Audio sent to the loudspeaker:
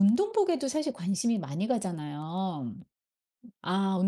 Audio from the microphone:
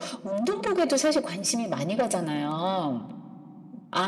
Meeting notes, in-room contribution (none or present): none